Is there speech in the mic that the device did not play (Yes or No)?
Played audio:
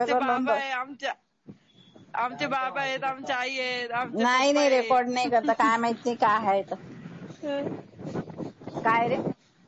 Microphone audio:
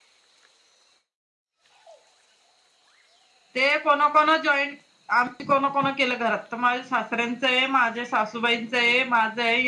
Yes